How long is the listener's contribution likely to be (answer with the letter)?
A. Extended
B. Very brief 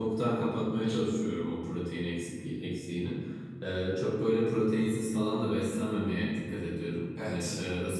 B